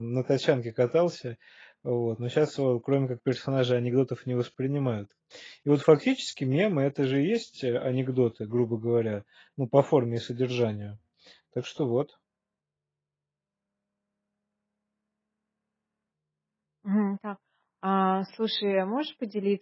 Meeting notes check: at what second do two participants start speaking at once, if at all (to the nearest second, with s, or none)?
none